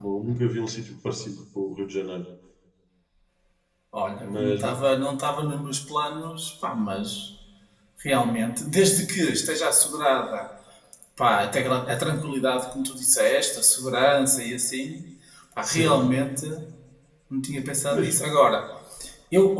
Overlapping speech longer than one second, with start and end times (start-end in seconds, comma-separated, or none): none